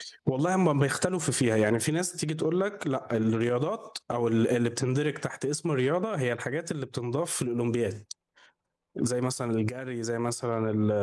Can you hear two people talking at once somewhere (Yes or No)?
No